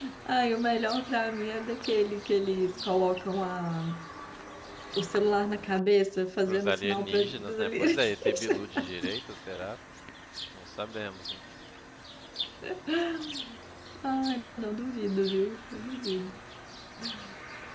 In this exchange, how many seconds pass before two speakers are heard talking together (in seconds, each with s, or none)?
6.5 s